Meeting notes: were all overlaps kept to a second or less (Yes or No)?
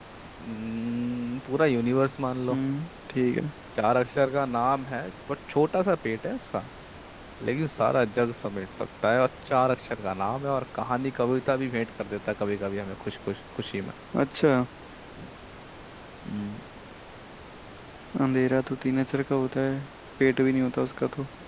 Yes